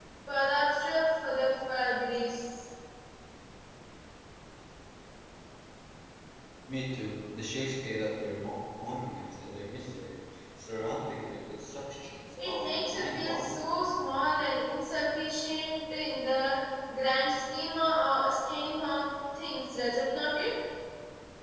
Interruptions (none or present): present